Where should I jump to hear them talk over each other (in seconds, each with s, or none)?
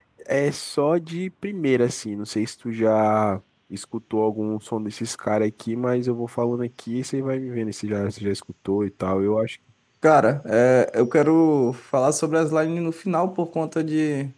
none